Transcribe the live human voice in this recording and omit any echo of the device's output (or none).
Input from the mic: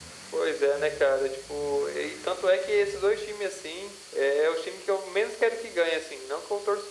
none